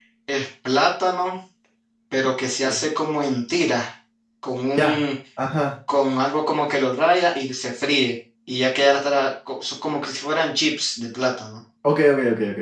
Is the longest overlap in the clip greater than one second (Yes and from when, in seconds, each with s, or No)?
No